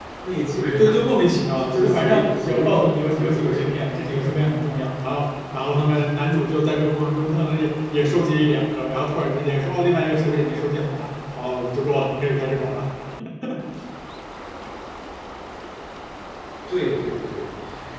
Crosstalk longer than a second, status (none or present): present